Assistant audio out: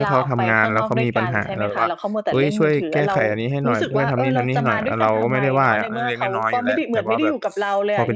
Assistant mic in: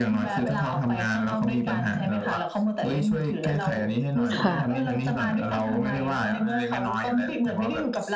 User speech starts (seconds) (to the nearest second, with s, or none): 4 s